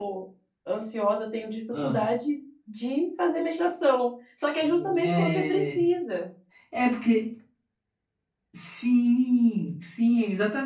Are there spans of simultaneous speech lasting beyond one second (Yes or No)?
Yes